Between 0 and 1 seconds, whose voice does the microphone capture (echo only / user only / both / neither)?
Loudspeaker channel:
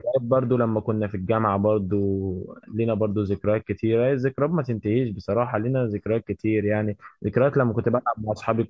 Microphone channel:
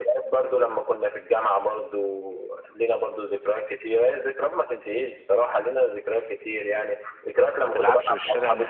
echo only